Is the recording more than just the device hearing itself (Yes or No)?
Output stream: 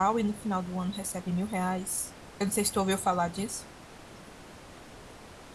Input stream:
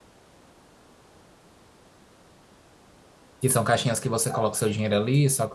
Yes